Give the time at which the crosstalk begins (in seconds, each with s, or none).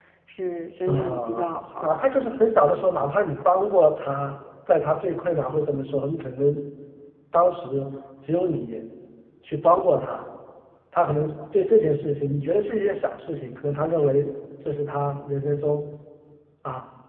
0.9 s